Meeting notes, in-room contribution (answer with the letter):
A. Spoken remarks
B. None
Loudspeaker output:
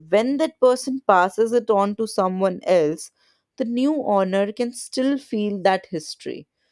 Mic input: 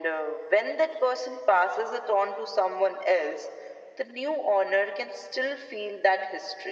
B